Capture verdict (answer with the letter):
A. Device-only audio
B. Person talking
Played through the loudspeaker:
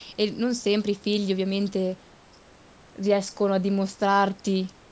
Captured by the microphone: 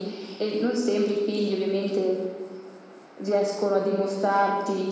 A